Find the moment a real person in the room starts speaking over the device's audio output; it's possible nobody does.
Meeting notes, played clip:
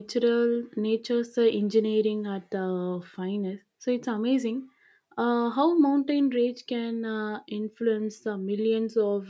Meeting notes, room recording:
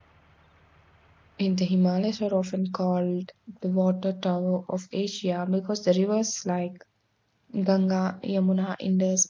1 s

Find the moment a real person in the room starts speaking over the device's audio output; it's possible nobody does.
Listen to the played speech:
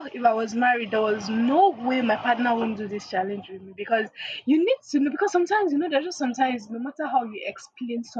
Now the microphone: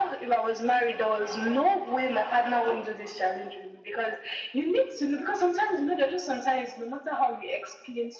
none

